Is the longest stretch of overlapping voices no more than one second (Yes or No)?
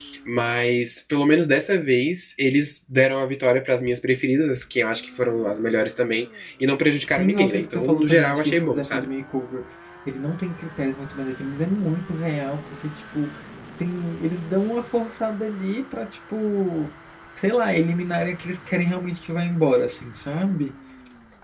No